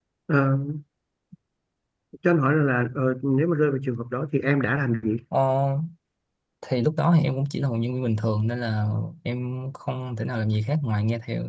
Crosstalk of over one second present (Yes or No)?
No